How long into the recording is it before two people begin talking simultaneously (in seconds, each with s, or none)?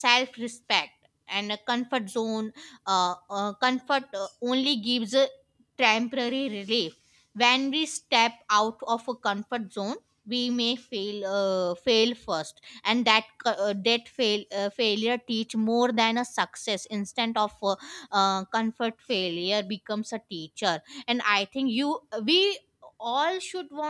none